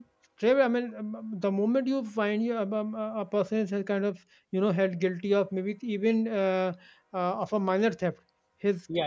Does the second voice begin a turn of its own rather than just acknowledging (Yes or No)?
No